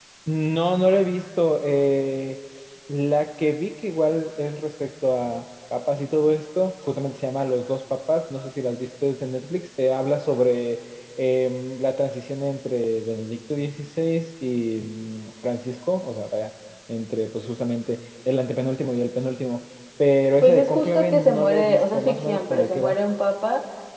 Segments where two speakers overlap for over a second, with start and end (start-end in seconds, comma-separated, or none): 20.4-23.0